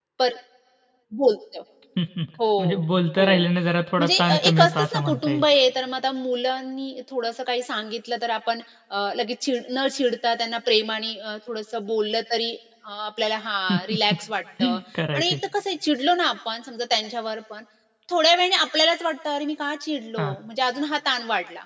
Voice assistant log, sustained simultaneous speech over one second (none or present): present